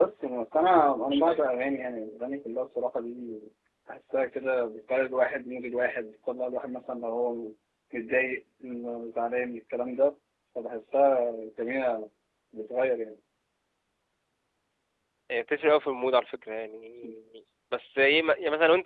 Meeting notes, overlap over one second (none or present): none